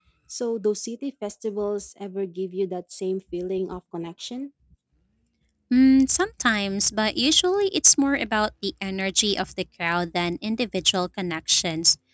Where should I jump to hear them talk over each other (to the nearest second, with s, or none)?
none